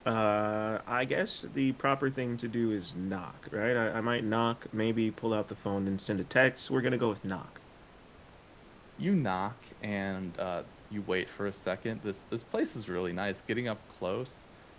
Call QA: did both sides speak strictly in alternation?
Yes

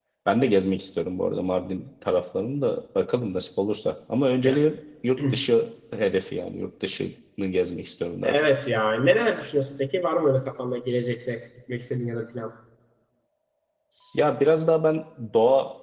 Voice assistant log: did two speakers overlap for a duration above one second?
No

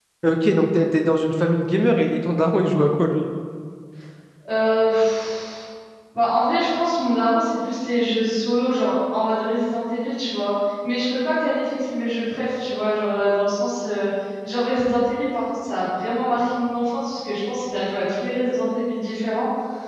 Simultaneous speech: No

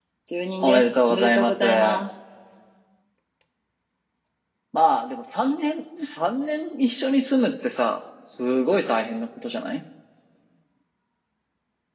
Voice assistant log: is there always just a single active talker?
No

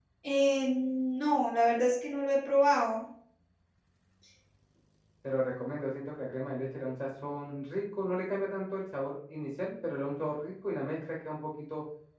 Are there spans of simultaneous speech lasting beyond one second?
No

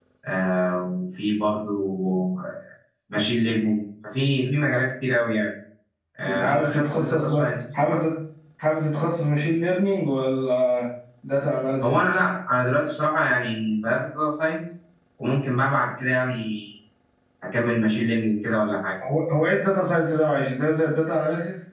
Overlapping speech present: Yes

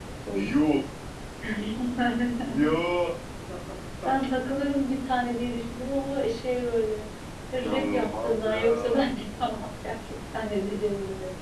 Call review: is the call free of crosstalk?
No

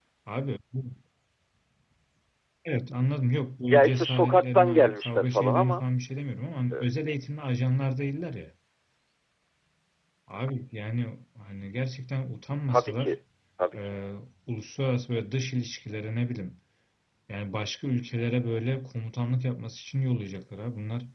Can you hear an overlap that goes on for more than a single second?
Yes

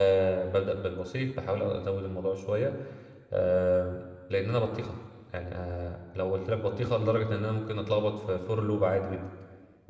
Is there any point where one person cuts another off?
No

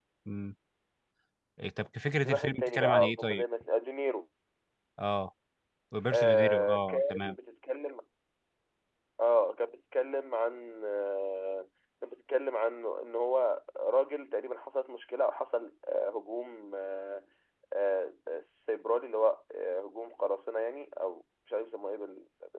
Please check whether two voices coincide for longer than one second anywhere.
Yes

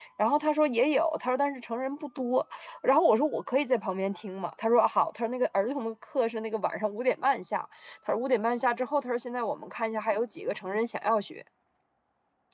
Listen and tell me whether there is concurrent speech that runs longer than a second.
No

